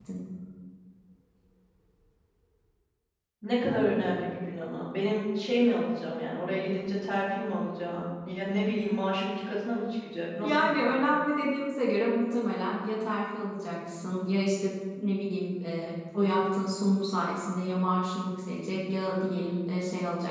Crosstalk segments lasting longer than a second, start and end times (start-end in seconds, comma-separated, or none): none